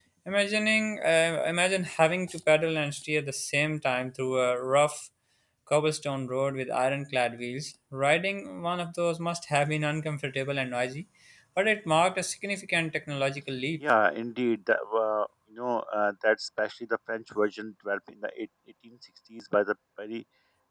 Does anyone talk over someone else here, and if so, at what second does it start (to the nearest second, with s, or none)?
none